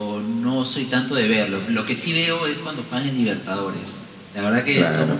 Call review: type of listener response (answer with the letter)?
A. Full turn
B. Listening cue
B